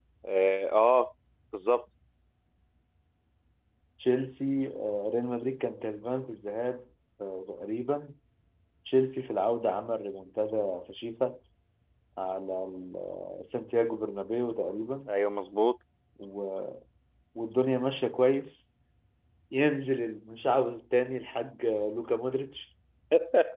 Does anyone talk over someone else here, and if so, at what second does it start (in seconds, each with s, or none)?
none